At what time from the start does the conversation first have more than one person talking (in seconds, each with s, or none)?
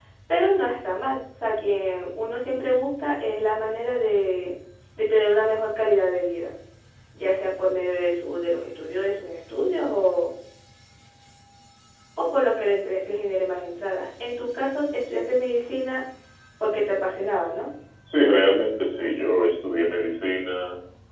none